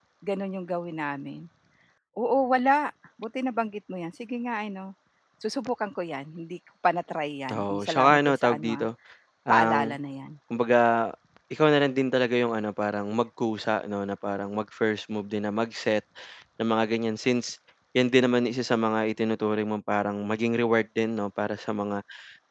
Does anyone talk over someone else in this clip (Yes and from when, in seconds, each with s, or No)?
Yes, from 7.5 s